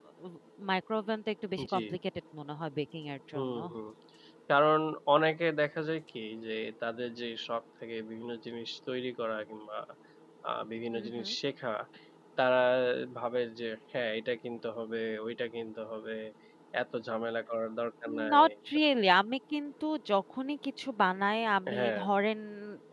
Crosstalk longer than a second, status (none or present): none